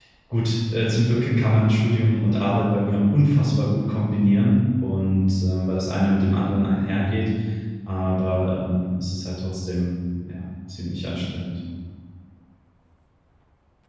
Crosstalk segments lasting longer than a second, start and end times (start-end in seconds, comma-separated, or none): none